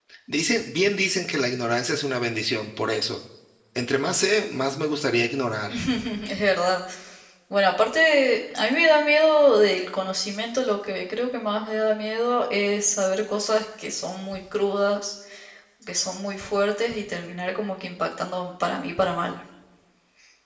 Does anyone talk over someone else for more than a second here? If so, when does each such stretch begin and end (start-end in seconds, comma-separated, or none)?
none